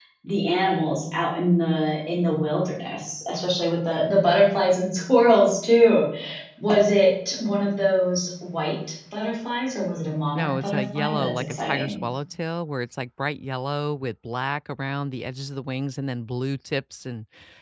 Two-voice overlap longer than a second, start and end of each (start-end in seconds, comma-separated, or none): 10.4-12.0